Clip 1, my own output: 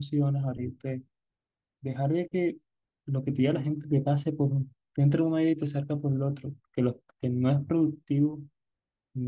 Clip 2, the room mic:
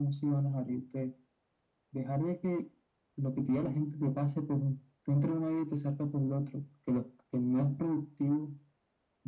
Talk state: echo only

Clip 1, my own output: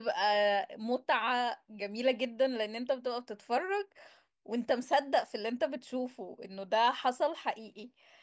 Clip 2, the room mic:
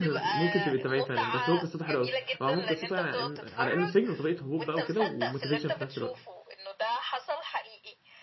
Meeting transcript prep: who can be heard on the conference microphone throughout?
both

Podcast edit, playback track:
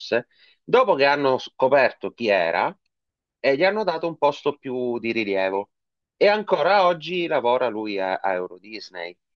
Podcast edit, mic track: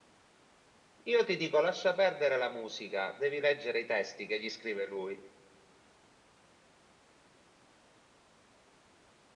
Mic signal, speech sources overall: user only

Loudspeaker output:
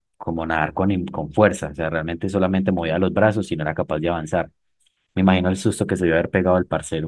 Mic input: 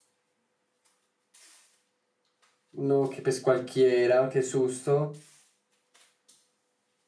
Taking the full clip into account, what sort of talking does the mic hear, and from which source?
user only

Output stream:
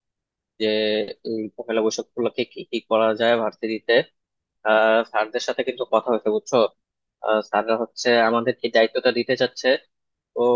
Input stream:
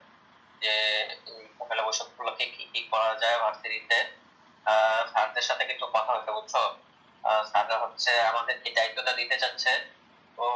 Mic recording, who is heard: echo only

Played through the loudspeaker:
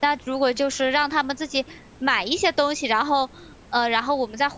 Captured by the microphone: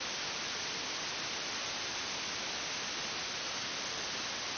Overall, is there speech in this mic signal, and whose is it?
neither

